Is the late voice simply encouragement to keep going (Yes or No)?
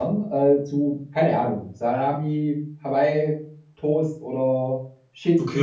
No